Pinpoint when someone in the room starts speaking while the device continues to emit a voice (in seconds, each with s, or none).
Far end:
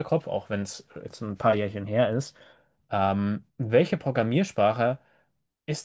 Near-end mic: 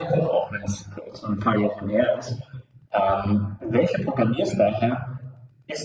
none